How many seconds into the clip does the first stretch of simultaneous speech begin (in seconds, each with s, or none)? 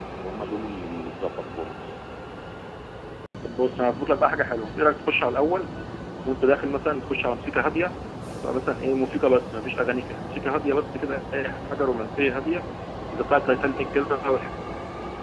none